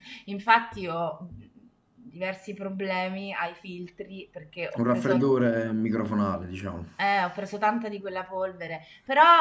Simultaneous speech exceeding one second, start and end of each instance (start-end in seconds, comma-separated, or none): none